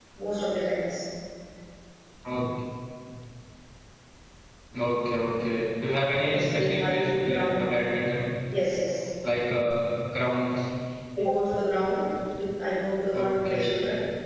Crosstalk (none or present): present